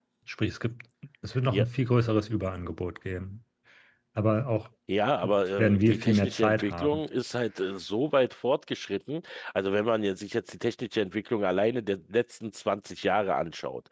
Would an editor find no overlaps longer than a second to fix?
No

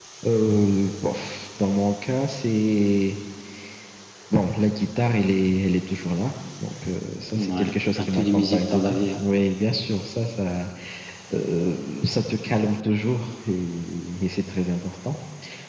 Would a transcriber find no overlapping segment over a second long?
No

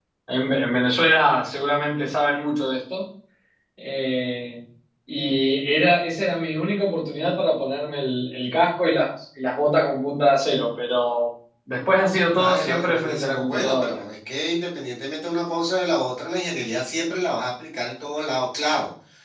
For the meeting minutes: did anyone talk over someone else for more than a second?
Yes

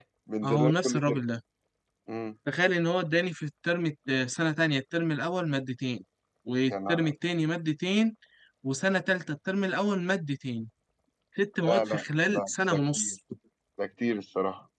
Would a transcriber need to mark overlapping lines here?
Yes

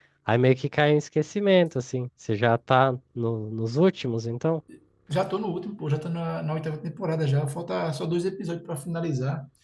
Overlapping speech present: No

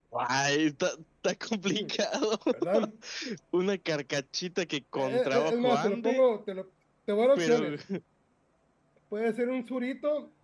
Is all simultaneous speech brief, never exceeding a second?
No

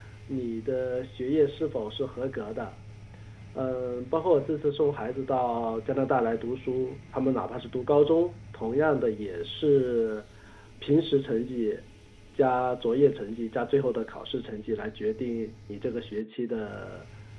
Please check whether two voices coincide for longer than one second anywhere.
No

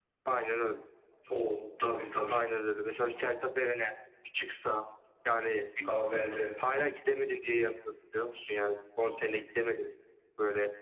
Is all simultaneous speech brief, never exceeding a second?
Yes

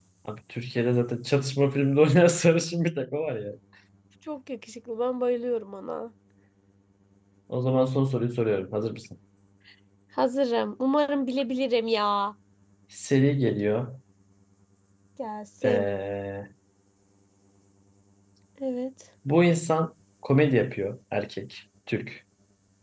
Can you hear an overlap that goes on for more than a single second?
No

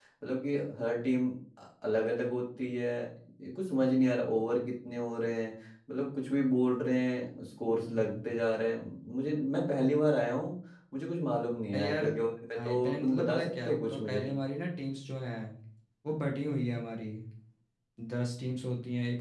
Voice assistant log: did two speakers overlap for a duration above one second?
Yes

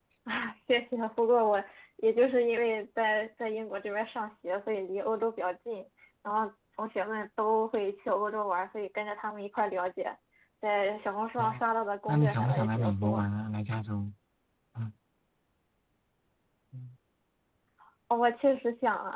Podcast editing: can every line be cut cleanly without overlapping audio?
No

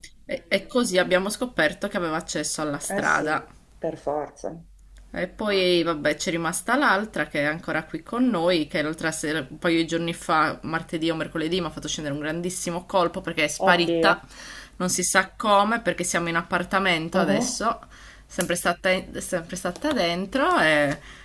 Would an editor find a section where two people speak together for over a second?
No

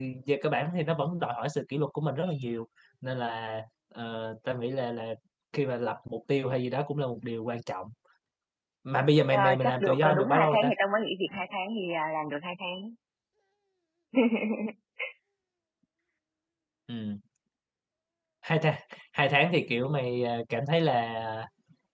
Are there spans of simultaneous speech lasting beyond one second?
Yes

